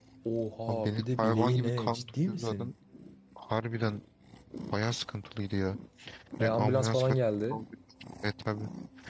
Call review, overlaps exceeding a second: present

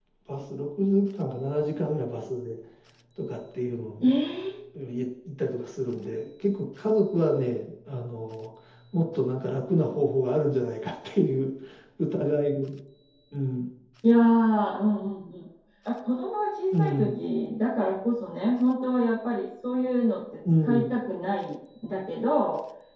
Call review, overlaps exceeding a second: none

